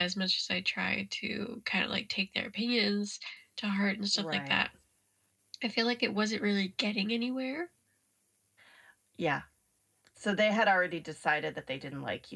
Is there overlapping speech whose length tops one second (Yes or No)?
No